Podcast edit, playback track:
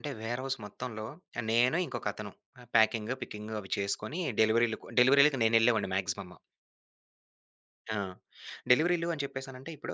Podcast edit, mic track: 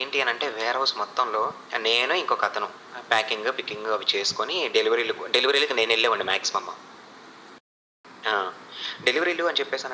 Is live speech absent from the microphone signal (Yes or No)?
Yes